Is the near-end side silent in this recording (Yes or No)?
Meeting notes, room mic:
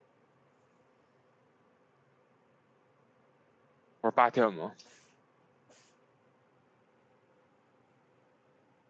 No